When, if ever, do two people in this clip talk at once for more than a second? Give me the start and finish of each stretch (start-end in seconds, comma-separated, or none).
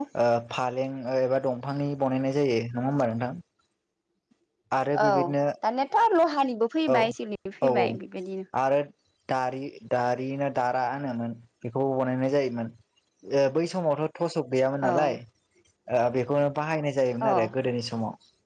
none